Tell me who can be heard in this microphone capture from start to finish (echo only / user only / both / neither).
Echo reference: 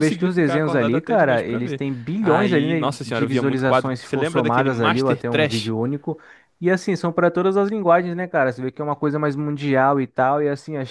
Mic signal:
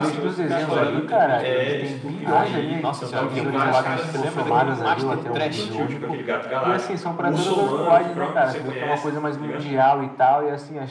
both